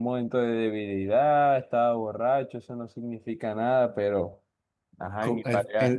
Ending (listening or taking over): taking over